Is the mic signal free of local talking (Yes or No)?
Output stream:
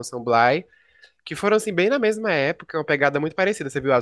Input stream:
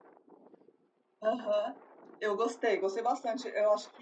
No